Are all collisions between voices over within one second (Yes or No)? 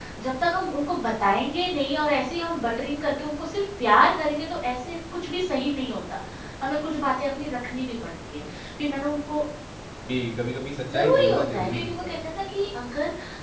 No